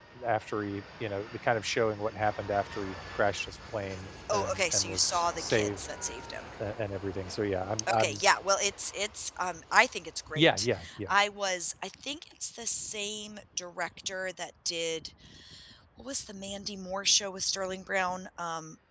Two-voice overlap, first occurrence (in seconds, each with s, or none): 4.3 s